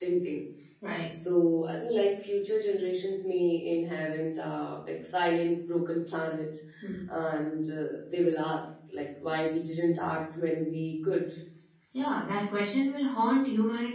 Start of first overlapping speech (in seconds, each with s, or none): none